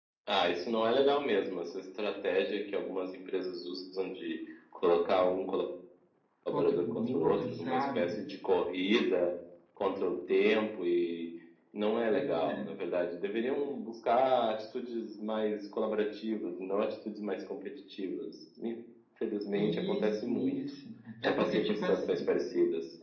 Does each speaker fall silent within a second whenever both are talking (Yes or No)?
No